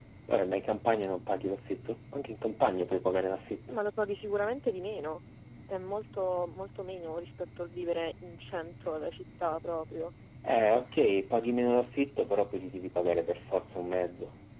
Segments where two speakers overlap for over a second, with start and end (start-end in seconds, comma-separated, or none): none